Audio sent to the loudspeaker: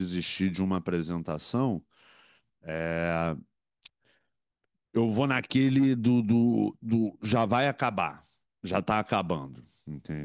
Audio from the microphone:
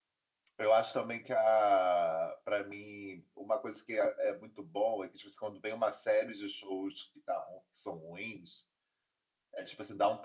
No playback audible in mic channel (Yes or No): Yes